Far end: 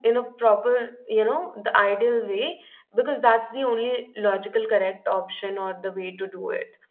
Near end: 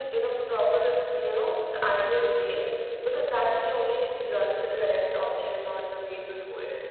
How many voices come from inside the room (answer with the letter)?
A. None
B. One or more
A